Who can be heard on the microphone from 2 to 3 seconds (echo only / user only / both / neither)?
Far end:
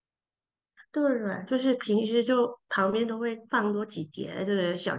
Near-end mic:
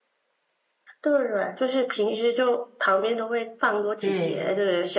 echo only